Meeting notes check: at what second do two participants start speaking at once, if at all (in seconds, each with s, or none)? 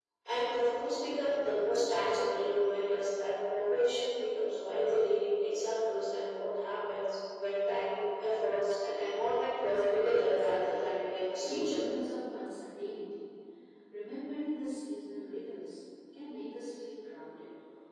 9.6 s